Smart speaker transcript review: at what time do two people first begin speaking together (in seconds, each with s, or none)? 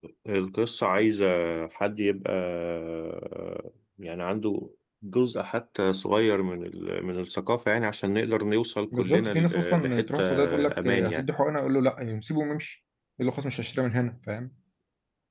8.9 s